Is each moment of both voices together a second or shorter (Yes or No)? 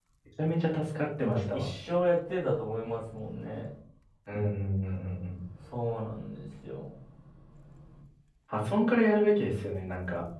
Yes